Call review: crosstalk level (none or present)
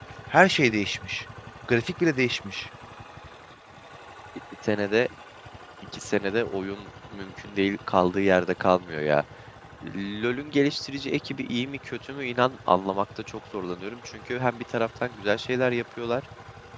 none